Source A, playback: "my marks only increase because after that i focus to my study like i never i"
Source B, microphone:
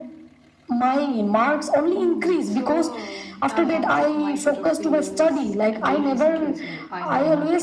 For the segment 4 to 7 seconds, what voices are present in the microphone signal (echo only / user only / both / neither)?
both